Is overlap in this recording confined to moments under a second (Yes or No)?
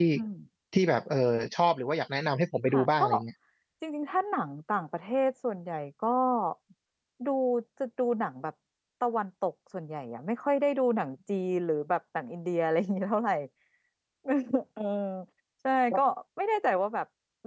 Yes